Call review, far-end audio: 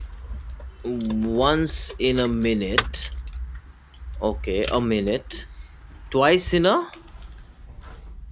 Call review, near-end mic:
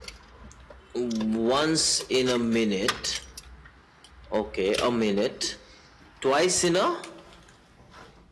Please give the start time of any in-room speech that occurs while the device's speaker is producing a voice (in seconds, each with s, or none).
none